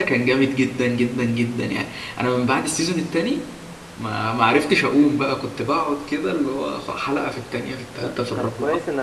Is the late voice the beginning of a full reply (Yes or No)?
Yes